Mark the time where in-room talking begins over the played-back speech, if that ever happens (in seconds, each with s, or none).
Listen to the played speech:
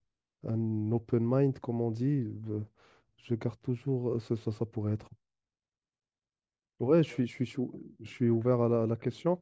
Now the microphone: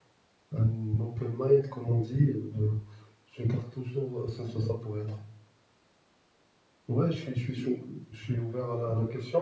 none